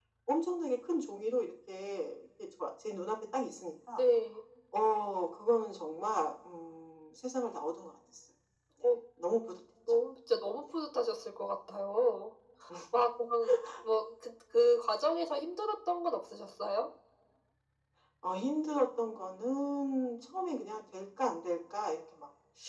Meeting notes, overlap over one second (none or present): none